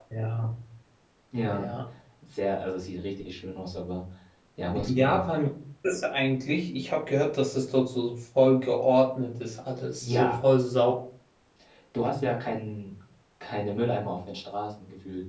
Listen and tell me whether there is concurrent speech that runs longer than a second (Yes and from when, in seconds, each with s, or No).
No